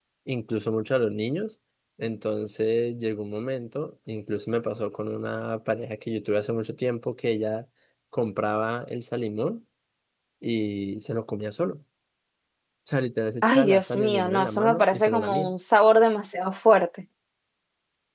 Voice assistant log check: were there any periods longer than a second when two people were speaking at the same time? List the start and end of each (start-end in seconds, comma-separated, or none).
13.4-15.5